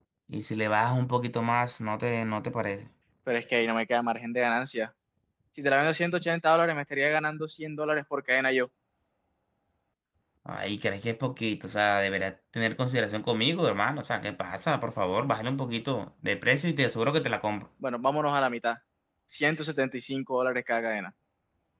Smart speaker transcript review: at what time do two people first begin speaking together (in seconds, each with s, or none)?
none